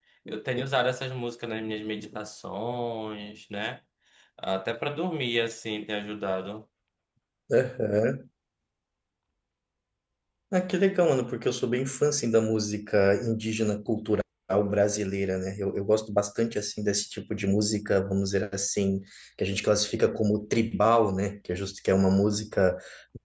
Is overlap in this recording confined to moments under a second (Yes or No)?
Yes